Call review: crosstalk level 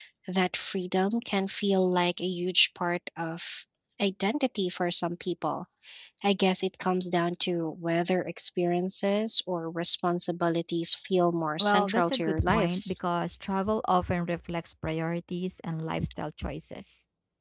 present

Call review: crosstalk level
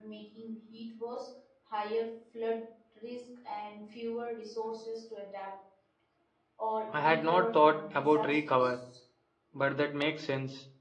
present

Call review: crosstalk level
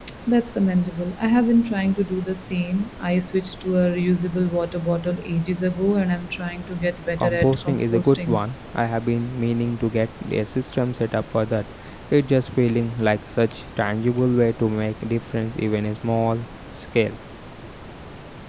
present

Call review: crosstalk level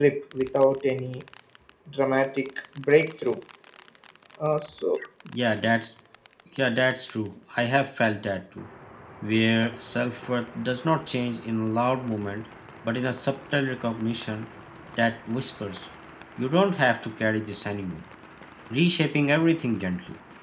none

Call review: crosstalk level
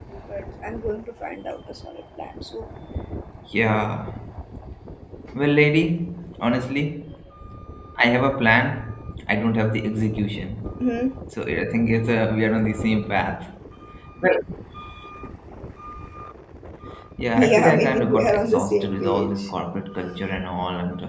present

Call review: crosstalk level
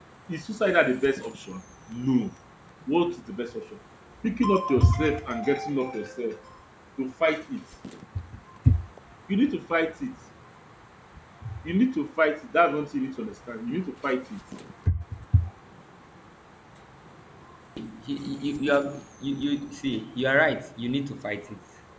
none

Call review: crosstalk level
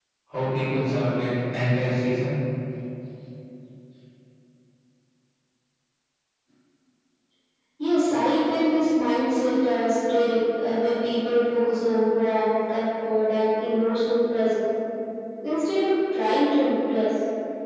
none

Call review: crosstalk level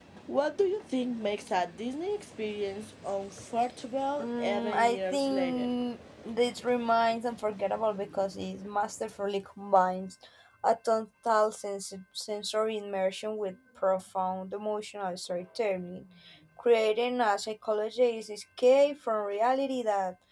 present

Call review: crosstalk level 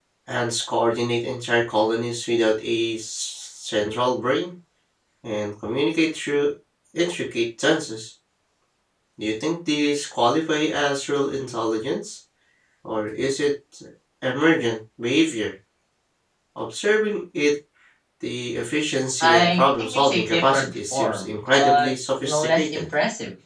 present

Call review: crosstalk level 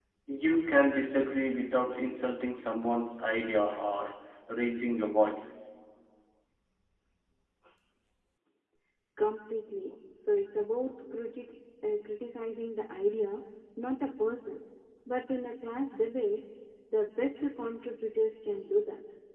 none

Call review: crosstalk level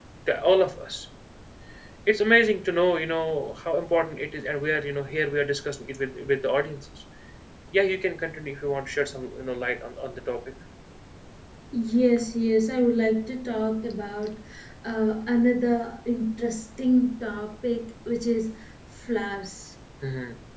none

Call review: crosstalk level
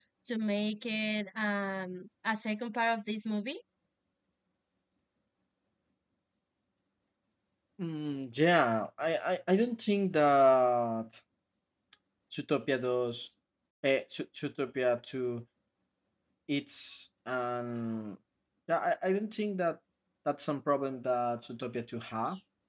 none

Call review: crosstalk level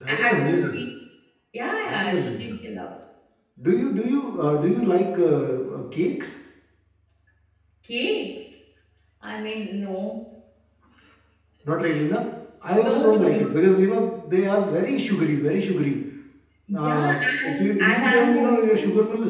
present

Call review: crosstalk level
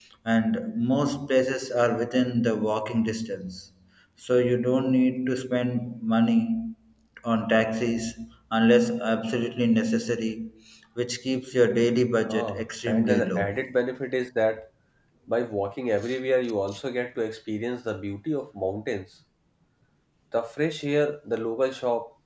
present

